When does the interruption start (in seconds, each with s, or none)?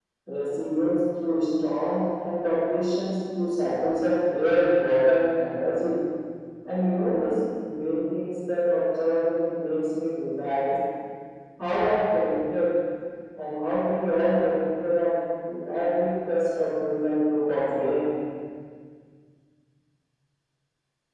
none